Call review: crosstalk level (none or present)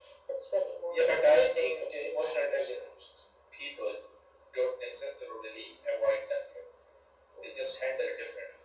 present